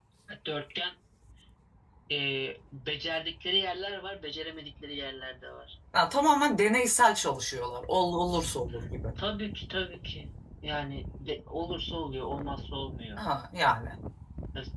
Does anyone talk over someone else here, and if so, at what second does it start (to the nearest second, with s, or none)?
none